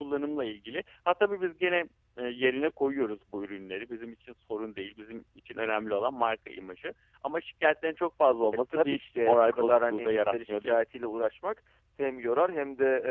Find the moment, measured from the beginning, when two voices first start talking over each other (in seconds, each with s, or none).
8.7 s